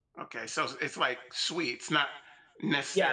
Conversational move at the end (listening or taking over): taking over